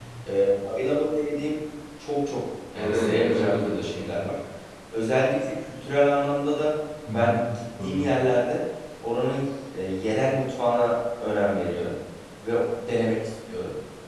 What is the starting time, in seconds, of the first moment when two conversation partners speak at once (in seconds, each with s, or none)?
2.7 s